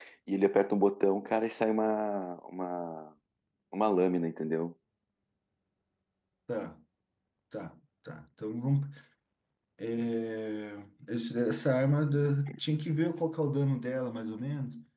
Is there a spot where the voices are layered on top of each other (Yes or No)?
No